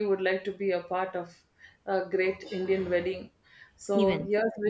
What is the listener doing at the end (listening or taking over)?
listening